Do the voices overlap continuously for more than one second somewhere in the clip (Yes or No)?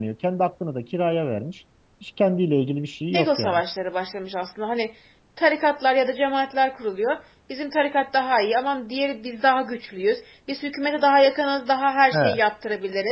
No